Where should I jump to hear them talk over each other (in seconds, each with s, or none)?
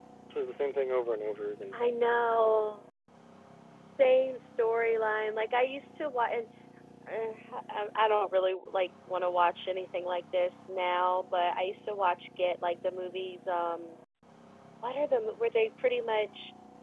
none